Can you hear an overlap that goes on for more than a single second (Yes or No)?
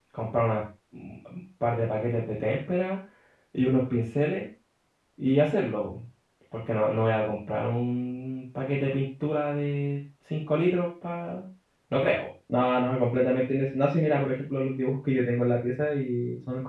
No